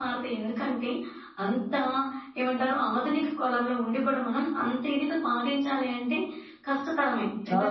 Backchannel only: Yes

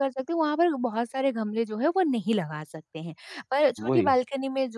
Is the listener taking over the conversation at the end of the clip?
No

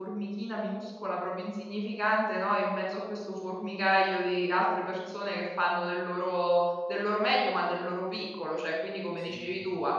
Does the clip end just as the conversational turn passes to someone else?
No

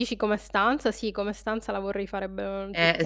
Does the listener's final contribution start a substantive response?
Yes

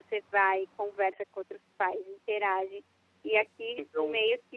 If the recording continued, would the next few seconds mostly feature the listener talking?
No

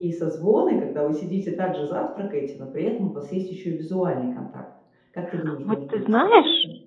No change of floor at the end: No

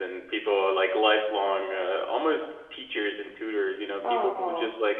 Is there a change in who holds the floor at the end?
No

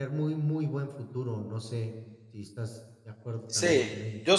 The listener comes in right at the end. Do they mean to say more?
Yes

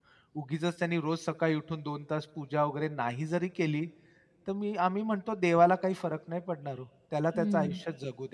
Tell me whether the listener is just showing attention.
Yes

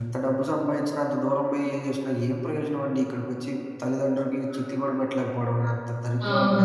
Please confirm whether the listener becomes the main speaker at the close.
Yes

